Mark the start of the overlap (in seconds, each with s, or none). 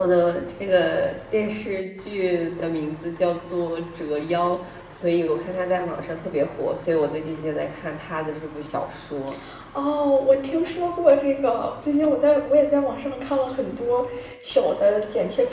none